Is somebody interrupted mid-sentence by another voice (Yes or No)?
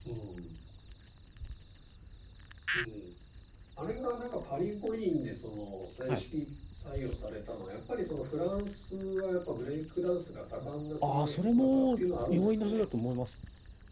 Yes